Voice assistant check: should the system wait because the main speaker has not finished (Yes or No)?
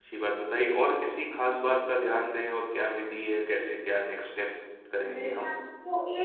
No